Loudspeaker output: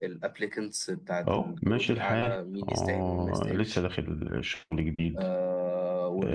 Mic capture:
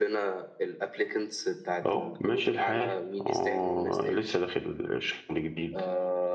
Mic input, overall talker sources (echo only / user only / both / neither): echo only